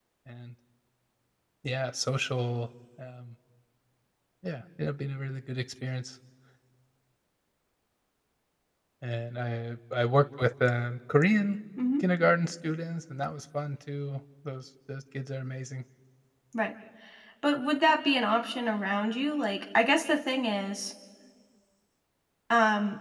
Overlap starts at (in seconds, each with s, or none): none